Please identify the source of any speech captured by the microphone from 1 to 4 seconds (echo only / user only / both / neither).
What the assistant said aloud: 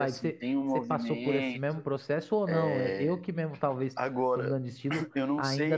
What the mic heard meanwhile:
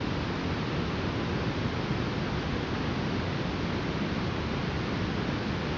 neither